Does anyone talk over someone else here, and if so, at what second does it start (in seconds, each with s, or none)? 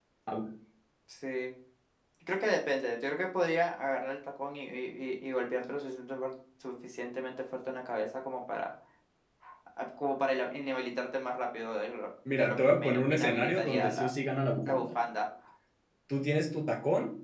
12.3 s